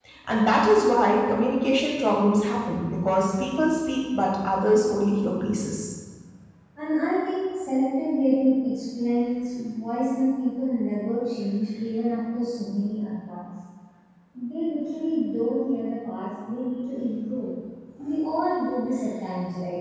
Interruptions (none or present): none